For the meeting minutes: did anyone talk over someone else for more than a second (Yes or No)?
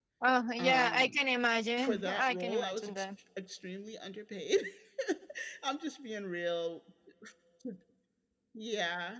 Yes